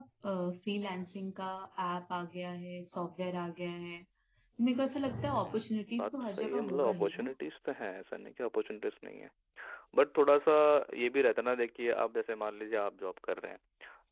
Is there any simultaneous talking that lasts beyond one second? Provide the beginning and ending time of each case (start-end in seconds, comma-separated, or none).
6.0-7.3